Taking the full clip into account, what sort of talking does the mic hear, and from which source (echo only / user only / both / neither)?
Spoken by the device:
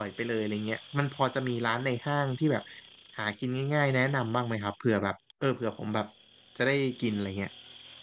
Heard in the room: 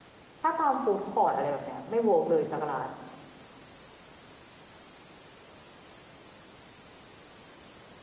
user only